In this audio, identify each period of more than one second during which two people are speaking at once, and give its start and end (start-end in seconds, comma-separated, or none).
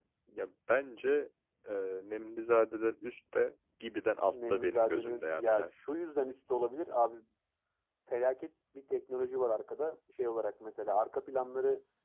4.3-5.8